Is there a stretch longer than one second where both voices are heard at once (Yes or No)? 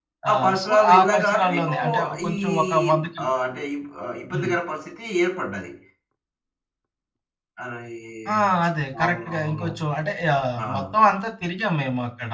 Yes